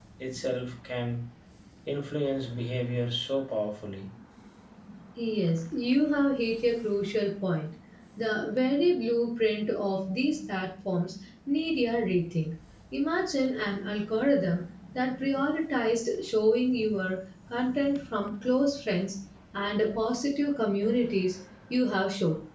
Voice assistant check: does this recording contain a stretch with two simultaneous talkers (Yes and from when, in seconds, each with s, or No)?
No